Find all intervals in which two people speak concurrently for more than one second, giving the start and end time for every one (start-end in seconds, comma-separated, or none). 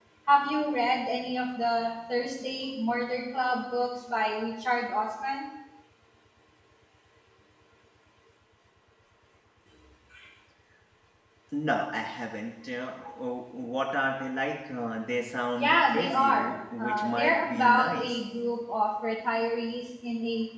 15.6-18.1